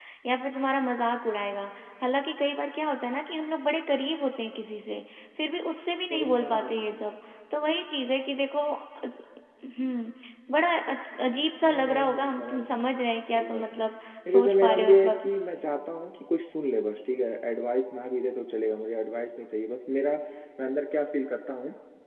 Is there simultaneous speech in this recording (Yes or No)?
Yes